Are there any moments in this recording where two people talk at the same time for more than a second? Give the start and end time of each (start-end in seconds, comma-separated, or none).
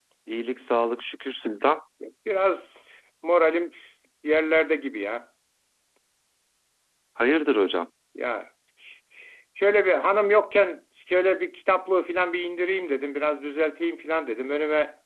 none